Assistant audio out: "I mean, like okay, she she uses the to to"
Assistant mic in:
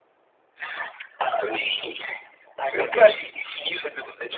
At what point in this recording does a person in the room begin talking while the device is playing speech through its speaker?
2.8 s

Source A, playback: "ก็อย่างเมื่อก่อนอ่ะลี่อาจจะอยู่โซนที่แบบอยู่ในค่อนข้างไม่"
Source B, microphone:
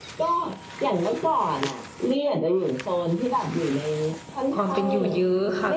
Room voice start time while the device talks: 4.5 s

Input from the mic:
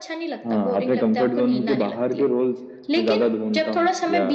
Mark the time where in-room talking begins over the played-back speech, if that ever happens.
none

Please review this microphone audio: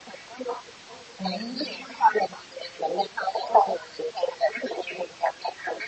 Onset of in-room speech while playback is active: 1.2 s

